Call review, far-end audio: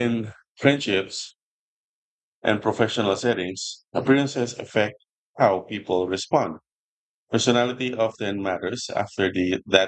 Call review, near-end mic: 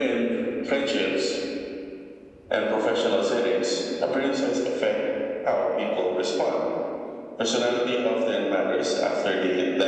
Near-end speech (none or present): none